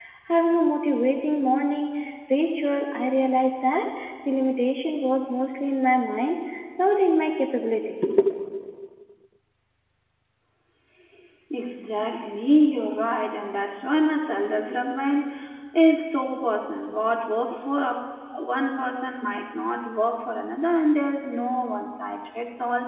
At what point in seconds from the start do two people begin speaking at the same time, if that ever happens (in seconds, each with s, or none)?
none